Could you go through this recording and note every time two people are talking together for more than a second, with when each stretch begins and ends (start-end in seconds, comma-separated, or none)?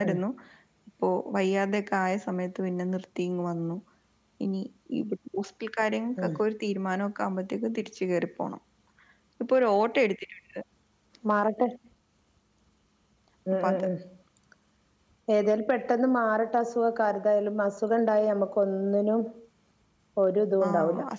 none